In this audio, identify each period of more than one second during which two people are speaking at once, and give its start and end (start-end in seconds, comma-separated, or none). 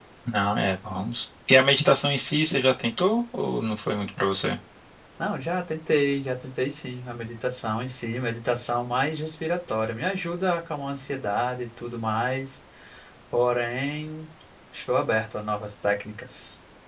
none